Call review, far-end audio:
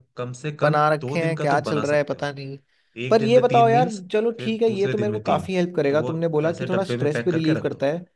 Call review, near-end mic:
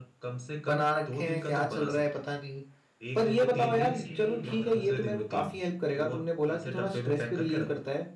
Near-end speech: present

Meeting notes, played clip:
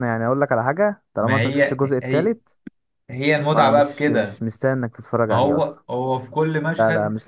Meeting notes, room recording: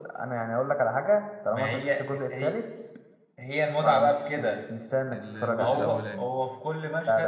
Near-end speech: present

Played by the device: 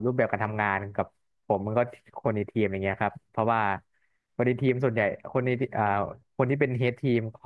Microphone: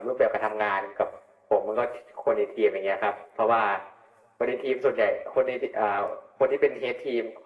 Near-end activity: none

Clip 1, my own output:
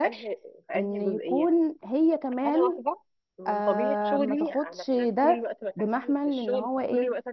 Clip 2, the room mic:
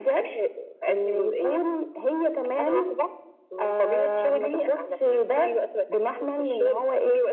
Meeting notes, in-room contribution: none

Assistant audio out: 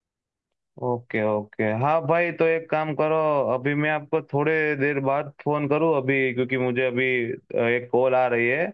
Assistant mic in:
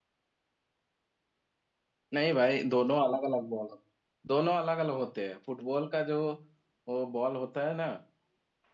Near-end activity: present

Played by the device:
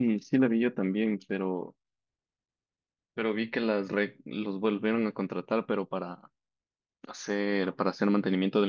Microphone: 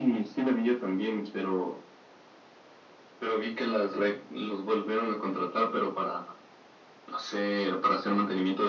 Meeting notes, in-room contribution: none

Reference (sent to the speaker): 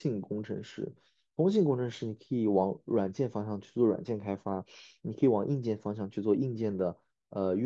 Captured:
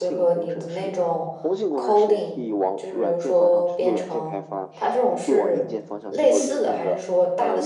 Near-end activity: present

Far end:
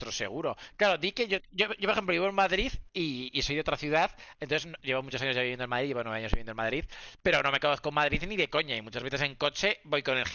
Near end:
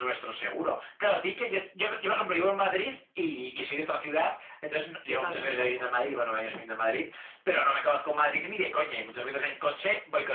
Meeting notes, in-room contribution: present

